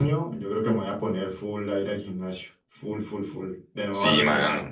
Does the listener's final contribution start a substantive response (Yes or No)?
Yes